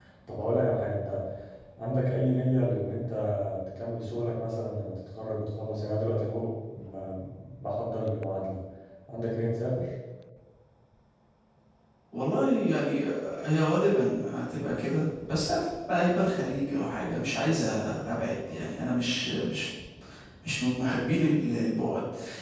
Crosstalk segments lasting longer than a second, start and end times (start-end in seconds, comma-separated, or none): none